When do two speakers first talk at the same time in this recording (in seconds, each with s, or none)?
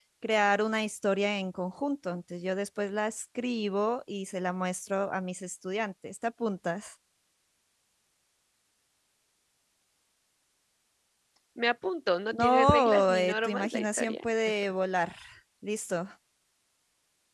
12.3 s